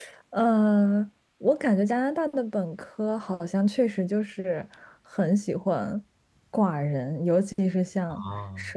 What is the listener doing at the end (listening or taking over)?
listening